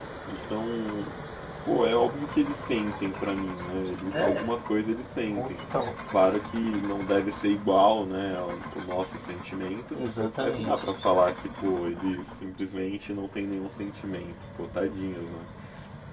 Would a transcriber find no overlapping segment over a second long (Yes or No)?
Yes